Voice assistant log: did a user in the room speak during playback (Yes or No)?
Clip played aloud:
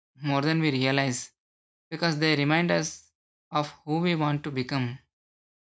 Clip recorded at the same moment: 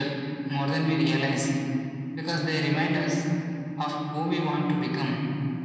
No